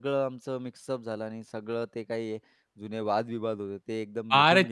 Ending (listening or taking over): taking over